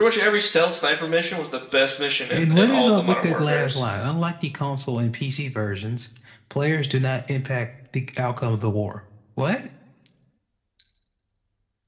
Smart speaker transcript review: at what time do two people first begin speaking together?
2.3 s

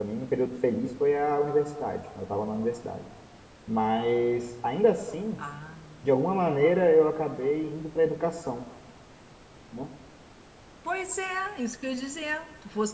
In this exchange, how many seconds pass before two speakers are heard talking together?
none

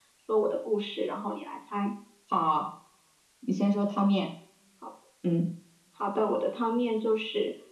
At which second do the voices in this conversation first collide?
none

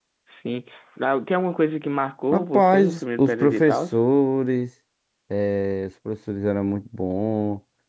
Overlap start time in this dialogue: 2.3 s

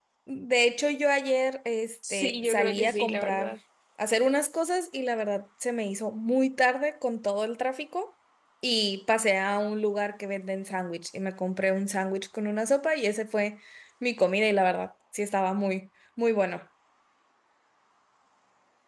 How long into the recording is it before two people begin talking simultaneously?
2.0 s

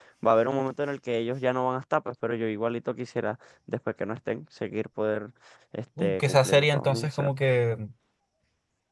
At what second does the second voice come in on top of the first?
6.0 s

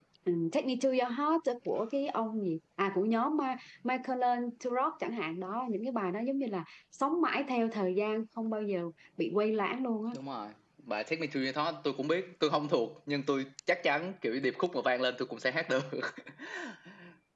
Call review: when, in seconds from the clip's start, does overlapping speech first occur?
none

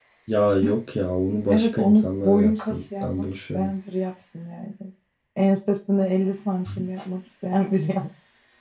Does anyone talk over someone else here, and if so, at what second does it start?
1.5 s

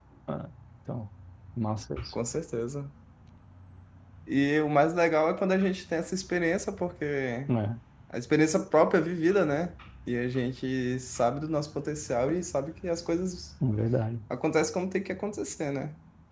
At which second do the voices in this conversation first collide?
none

